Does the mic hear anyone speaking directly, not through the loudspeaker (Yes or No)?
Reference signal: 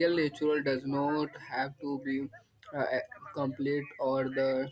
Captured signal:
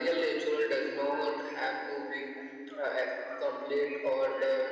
No